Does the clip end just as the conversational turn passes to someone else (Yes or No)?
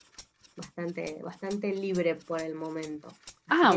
No